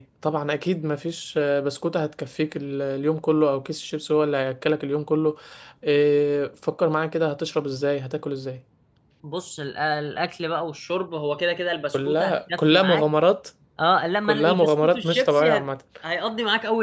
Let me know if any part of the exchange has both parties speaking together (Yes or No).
Yes